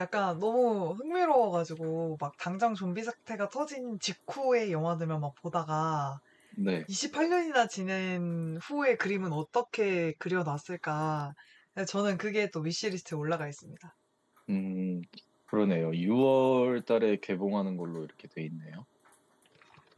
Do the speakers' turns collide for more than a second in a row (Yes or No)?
No